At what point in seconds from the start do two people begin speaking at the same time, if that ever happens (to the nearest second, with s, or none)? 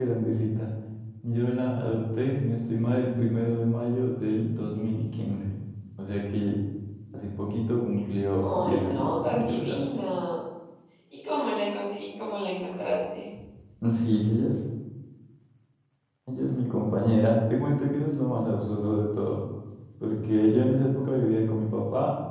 8 s